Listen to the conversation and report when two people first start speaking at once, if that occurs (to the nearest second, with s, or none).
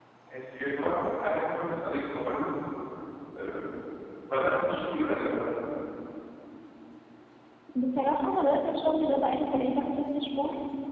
none